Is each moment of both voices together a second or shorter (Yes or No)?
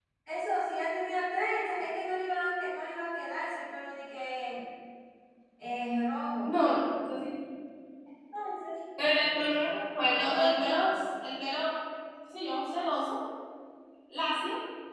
Yes